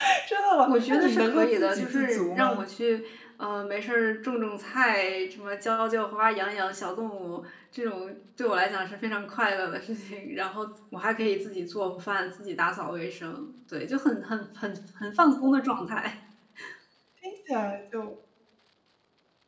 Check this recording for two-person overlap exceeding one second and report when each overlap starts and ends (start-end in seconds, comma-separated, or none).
0.7-2.6